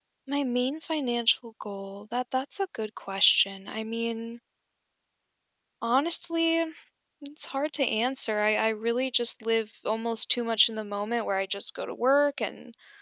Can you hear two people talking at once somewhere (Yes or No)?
No